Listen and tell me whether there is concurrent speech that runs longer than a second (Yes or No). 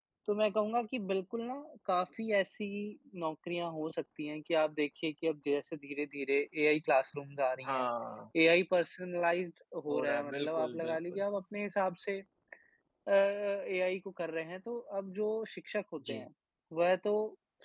Yes